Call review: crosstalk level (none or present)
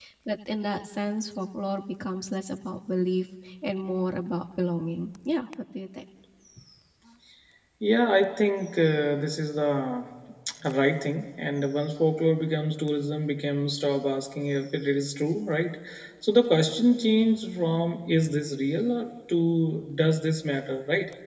none